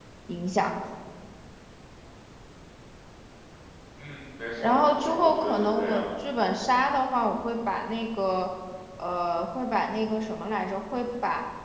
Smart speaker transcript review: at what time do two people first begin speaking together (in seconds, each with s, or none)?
4.6 s